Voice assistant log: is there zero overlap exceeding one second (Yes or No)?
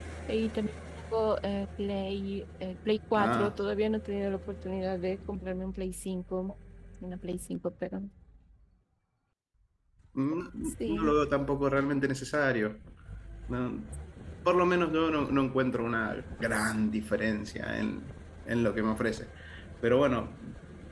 Yes